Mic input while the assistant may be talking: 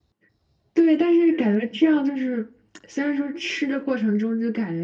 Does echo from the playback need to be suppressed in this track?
Yes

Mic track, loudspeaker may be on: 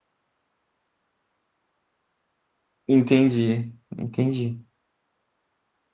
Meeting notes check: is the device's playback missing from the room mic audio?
Yes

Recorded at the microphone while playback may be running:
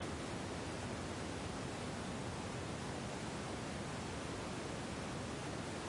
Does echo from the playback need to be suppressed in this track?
No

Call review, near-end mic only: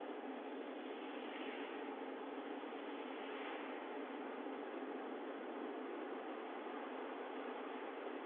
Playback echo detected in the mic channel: No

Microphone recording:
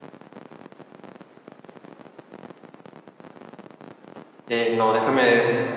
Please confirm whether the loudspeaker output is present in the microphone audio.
No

